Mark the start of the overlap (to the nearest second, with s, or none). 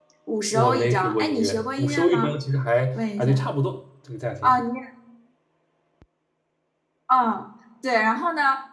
1 s